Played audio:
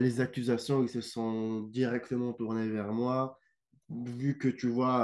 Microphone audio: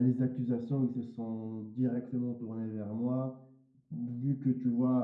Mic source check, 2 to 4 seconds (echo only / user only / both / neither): echo only